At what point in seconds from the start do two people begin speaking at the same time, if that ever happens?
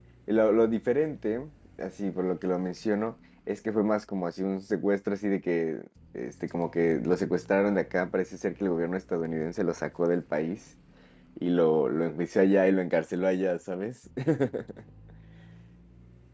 none

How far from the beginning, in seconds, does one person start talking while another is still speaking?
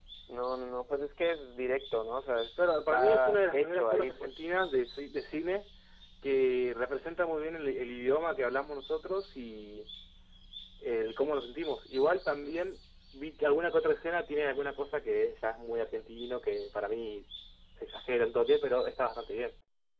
3 s

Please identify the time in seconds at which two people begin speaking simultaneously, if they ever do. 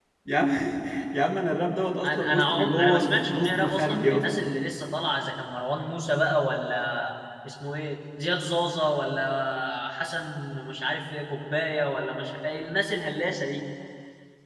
2 s

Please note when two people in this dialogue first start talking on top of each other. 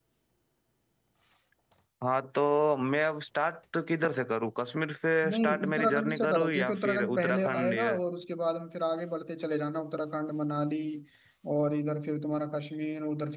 5 s

